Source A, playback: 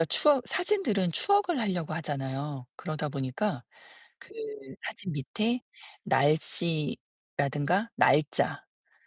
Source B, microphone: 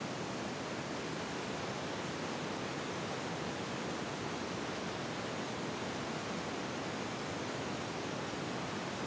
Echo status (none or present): none